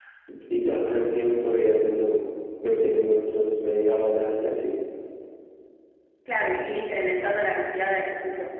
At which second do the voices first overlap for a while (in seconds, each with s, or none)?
none